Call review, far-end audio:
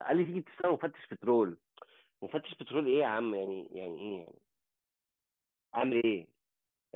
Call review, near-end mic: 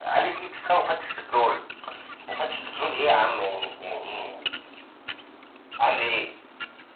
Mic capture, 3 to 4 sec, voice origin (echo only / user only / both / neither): echo only